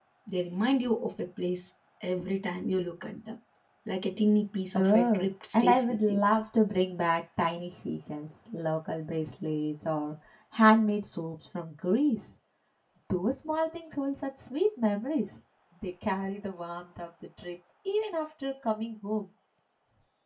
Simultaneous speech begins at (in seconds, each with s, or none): 4.8 s